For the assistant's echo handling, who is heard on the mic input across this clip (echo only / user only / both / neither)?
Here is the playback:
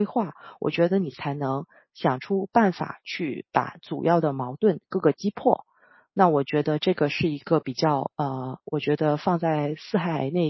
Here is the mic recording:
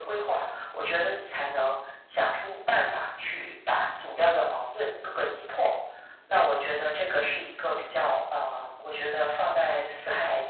echo only